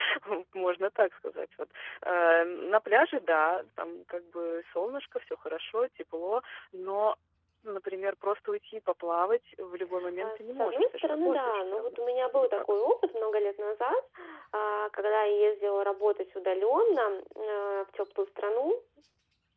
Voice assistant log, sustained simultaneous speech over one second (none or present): present